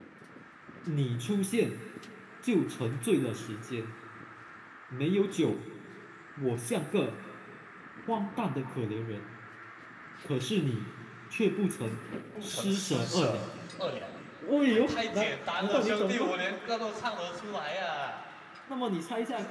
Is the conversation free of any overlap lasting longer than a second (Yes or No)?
No